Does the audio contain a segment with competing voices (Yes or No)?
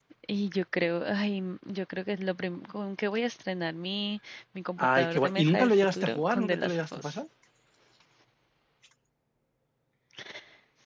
Yes